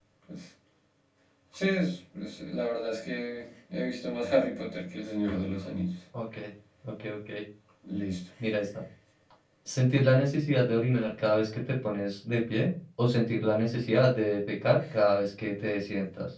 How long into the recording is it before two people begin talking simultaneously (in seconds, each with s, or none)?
none